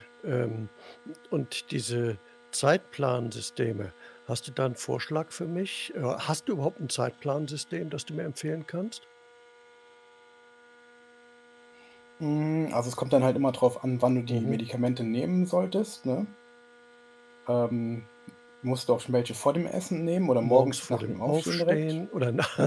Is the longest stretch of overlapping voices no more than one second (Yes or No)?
No